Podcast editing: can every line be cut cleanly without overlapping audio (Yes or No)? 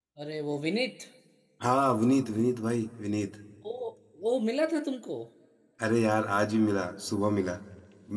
Yes